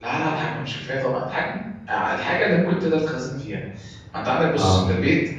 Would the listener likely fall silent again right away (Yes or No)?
Yes